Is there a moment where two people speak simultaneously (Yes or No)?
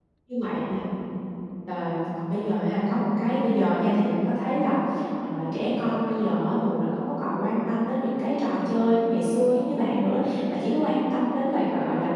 No